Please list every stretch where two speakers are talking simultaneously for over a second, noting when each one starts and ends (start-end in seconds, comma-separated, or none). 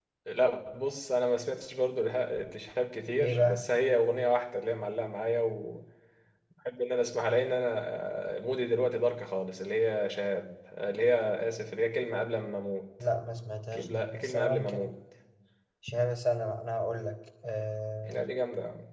13.7-14.9